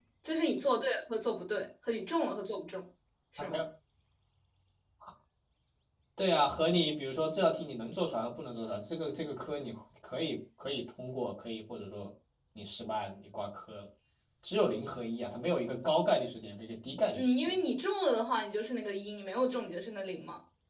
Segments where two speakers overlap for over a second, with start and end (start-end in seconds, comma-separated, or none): none